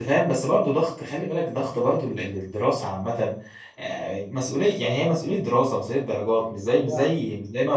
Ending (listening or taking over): listening